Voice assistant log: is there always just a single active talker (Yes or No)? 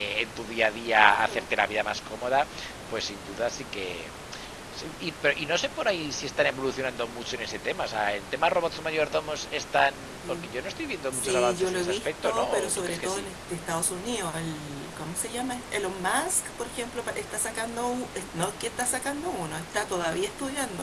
No